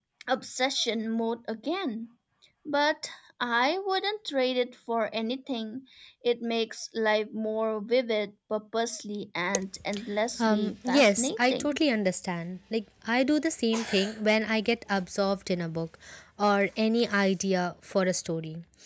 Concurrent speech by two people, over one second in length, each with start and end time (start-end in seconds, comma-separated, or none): 10.4-11.8